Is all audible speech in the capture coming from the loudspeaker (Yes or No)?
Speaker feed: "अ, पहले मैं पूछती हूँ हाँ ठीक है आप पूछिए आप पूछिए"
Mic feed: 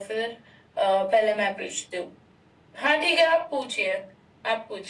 Yes